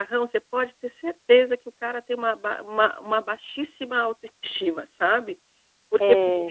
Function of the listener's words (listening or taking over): listening